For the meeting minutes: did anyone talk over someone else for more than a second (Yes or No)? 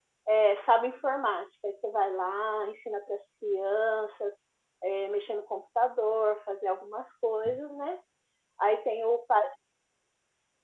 No